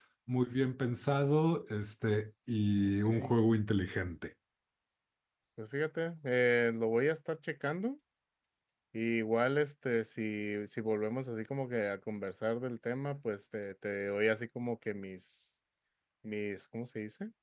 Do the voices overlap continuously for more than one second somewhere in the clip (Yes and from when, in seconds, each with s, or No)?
No